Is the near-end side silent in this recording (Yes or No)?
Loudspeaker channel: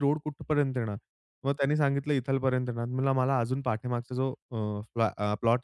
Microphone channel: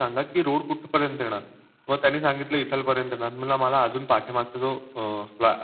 Yes